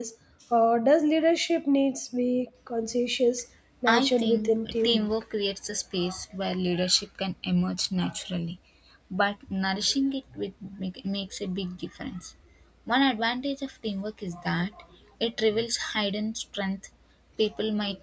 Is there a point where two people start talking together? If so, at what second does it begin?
3.9 s

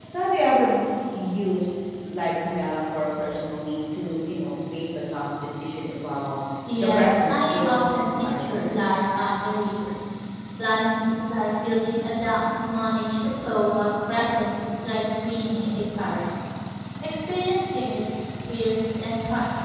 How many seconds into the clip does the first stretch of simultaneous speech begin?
6.8 s

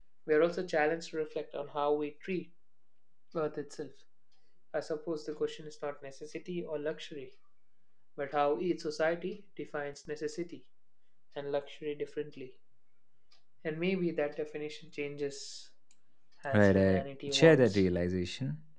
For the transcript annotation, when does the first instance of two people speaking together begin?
16.5 s

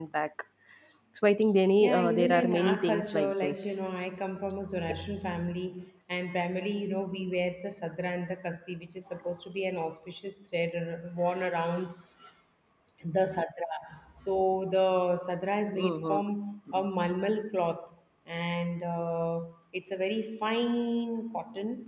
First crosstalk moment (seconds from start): 1.8 s

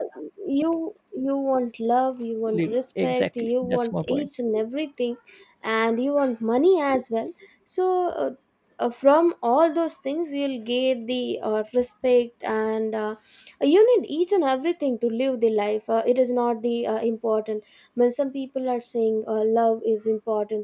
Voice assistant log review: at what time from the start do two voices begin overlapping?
2.5 s

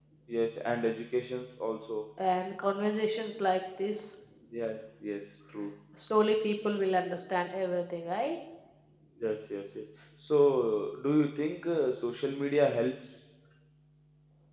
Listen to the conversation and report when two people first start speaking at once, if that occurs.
none

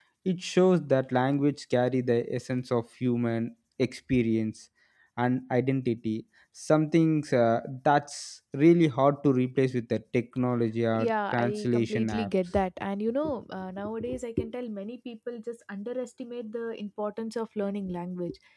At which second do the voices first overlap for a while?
10.9 s

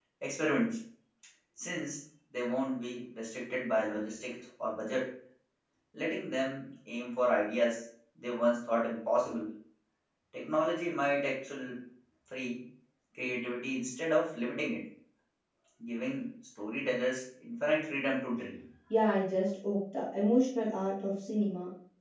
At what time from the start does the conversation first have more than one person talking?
none

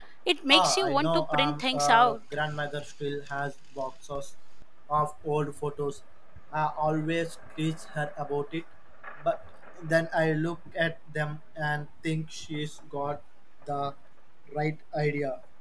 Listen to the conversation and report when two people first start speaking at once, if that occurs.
0.5 s

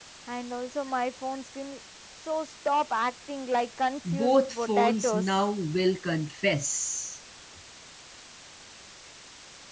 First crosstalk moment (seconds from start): 4.0 s

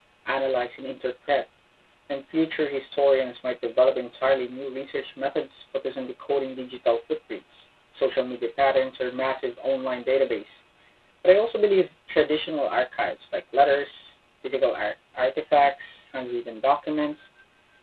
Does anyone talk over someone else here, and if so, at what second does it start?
none

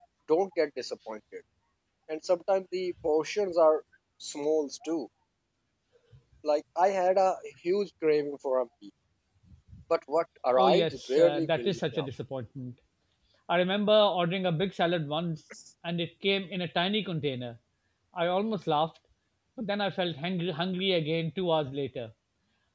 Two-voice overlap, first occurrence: 10.6 s

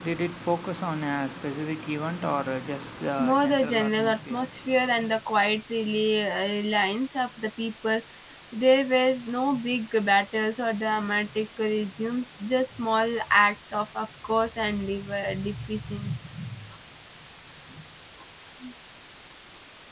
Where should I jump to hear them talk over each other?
3.2 s

